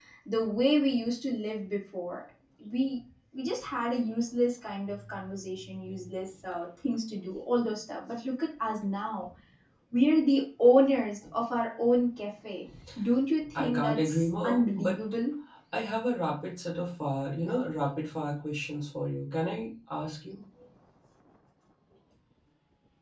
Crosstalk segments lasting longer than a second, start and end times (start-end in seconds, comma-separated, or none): 13.6-15.0